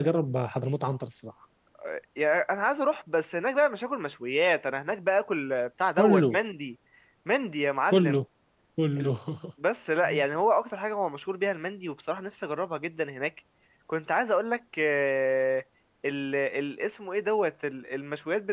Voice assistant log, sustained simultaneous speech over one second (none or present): none